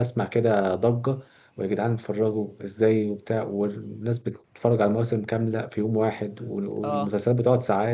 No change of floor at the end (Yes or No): Yes